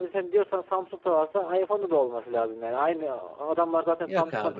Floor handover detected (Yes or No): No